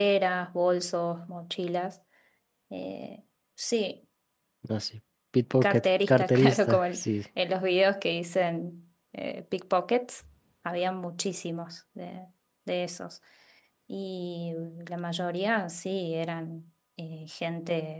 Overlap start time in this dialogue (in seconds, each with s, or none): 5.6 s